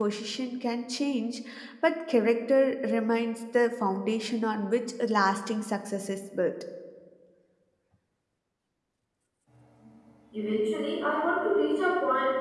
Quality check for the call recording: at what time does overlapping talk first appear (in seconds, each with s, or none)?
none